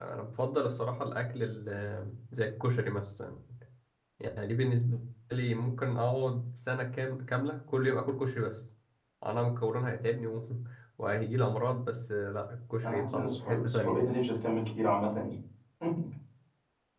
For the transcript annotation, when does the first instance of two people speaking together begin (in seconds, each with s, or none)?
12.8 s